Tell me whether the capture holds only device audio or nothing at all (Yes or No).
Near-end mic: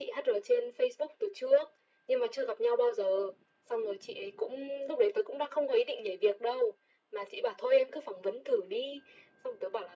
Yes